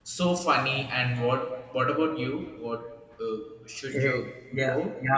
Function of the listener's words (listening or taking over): taking over